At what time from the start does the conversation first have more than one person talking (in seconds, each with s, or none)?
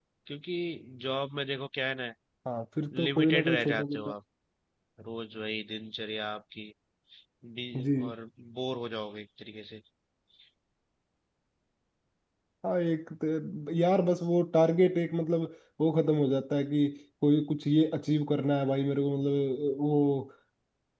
2.9 s